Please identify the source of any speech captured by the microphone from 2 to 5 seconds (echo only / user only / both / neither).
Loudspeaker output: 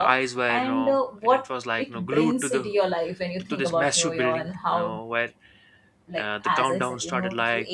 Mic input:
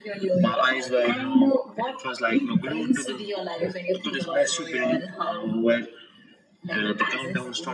echo only